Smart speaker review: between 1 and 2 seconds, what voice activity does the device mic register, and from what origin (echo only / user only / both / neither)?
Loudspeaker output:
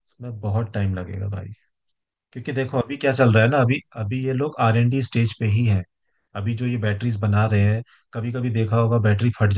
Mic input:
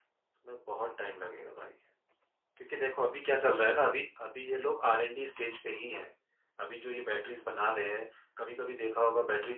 echo only